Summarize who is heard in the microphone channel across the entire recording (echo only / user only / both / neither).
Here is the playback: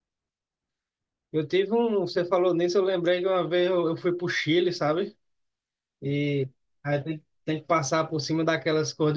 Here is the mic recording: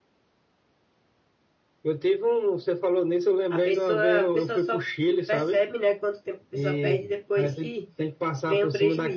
both